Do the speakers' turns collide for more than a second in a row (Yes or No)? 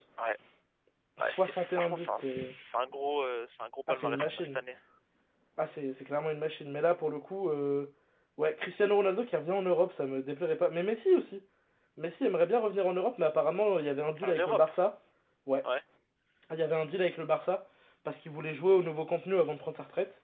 Yes